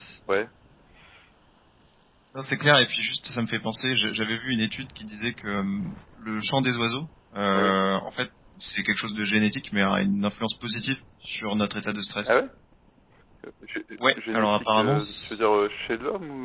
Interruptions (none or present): present